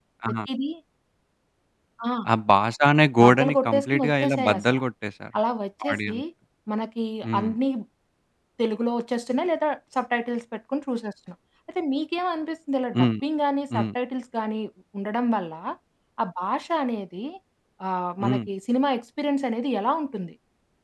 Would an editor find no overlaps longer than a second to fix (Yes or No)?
No